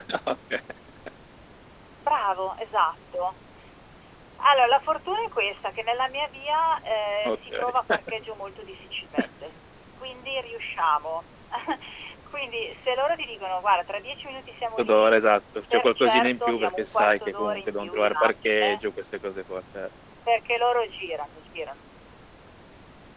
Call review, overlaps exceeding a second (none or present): present